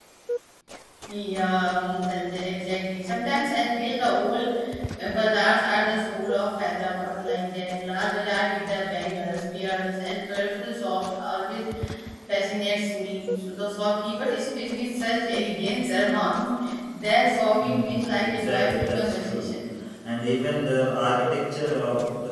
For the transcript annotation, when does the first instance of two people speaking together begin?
17.6 s

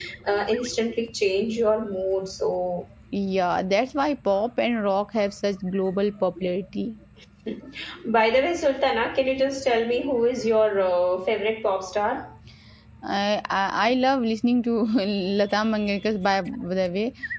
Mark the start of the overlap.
none

